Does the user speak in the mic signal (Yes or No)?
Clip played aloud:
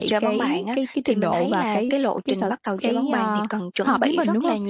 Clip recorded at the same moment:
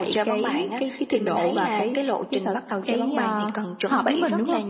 No